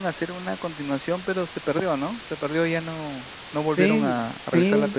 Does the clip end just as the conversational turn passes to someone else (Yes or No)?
Yes